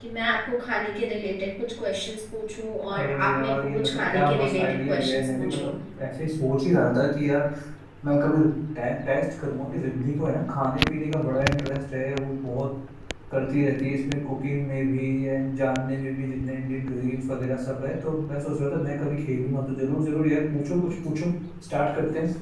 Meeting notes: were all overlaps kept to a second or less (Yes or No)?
No